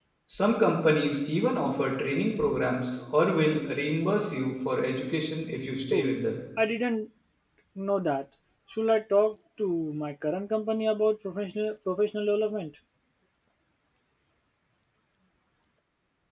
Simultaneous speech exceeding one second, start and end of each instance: none

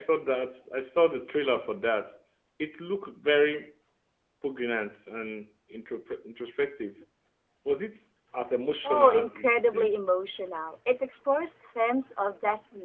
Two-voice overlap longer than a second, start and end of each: 8.8-10.2

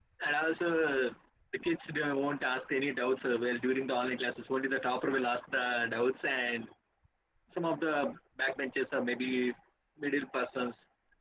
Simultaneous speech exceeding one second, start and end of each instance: none

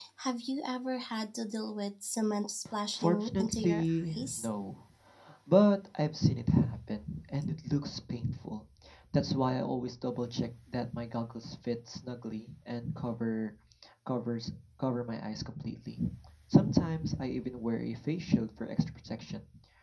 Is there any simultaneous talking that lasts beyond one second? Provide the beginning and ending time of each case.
2.9-4.5

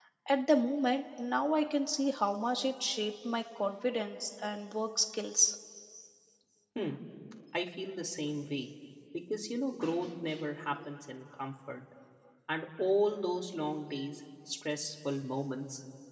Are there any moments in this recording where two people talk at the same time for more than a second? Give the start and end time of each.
none

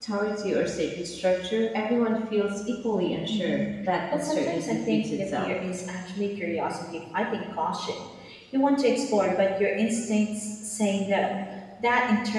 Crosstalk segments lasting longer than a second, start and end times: 4.1-5.5

